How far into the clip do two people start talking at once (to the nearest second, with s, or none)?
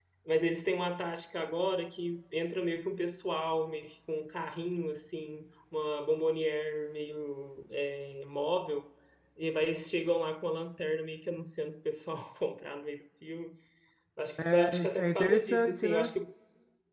15 s